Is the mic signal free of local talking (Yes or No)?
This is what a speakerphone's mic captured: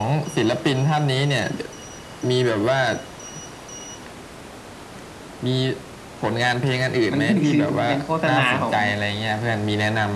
No